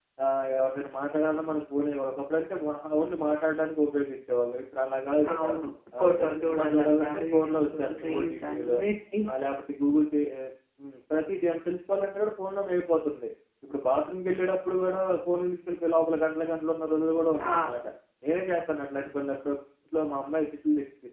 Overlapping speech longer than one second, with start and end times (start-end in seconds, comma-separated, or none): 6.0-8.8